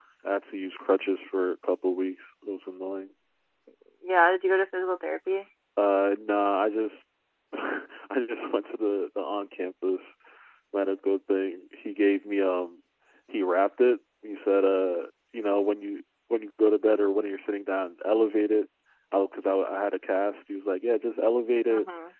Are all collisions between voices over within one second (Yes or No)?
Yes